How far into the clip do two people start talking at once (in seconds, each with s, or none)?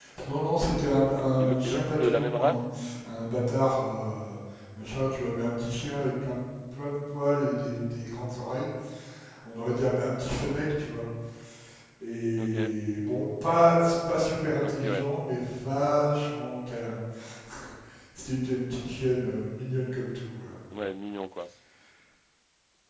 1.2 s